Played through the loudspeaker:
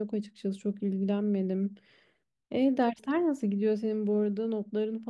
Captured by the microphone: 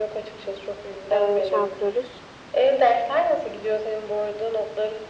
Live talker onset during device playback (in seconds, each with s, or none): 1.1 s